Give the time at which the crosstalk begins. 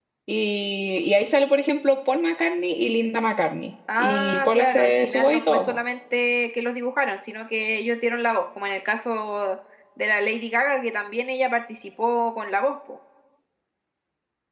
4 s

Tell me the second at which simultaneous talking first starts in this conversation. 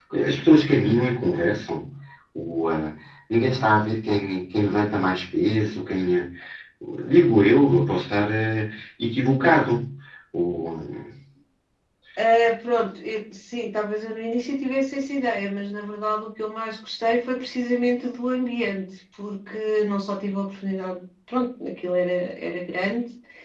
none

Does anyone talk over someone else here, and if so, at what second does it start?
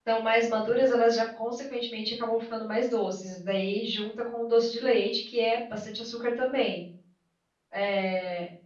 none

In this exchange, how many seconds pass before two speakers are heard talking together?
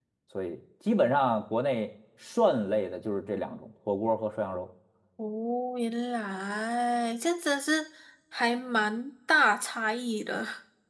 none

